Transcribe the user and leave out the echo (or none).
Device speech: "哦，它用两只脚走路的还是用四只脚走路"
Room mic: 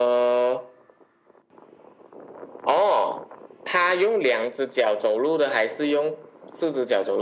none